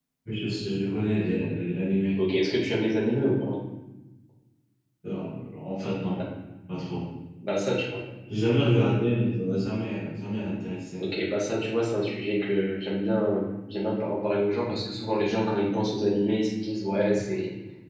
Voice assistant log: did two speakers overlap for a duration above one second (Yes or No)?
No